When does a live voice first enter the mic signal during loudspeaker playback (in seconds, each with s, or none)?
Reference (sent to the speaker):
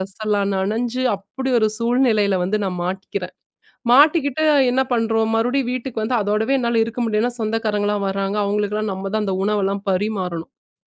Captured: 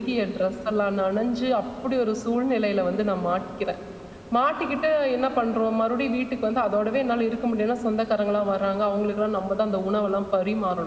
none